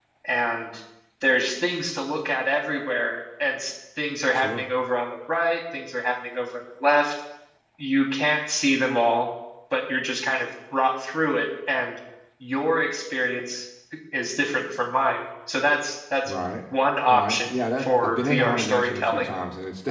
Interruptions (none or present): present